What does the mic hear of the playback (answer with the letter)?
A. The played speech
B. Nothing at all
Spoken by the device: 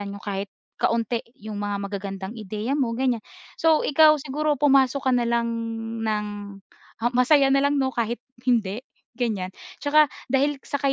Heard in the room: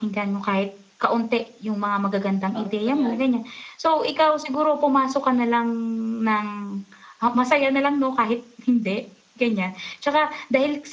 A